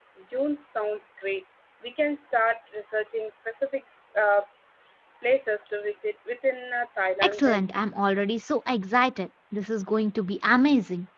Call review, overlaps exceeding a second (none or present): none